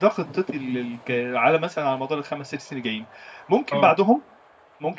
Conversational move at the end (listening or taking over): listening